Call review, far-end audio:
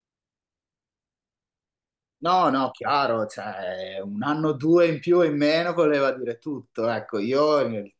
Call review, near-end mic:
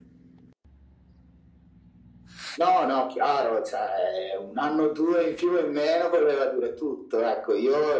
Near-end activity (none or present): none